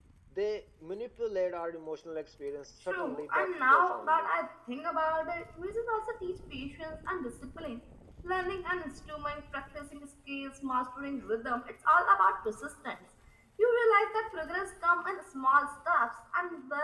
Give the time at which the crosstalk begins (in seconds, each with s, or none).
2.9 s